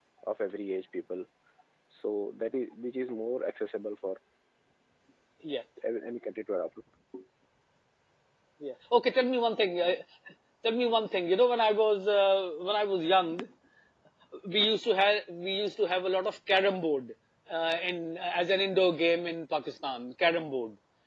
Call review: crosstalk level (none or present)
none